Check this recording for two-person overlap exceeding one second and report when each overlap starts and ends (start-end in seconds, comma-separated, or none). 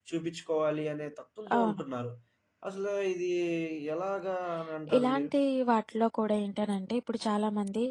none